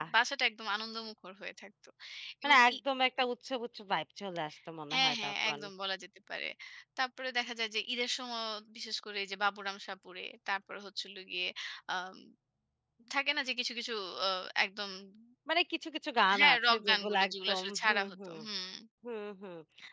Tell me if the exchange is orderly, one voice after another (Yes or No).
No